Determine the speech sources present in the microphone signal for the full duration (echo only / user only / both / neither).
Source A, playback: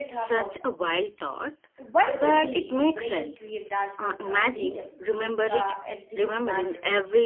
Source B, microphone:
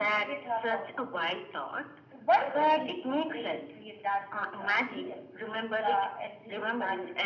echo only